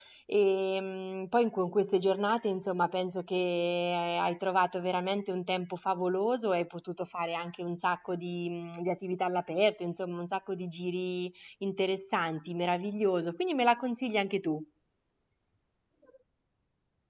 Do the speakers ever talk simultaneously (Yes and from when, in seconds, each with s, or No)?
No